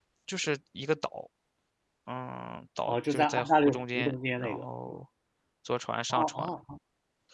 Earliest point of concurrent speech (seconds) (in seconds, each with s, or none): 2.9 s